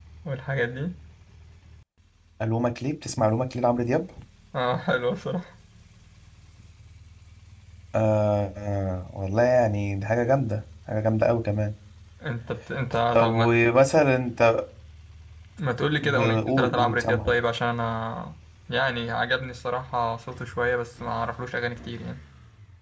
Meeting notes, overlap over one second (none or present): present